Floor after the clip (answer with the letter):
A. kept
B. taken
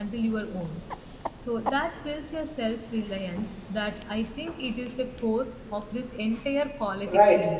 B